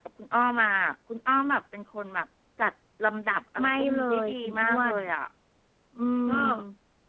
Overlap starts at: 3.6 s

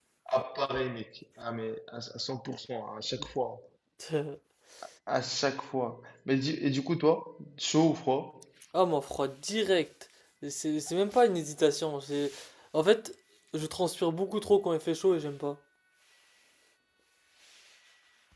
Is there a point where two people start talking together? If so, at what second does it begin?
none

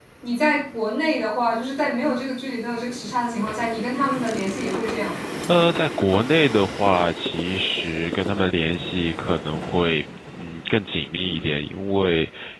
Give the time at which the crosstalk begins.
none

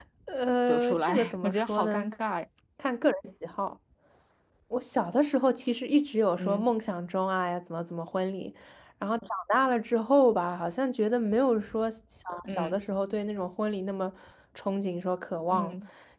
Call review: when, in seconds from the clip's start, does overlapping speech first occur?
0.7 s

